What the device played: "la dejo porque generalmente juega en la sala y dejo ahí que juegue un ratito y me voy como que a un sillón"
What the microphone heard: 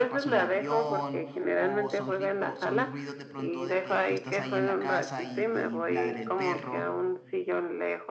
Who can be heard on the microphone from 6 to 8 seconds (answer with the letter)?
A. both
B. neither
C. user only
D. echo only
A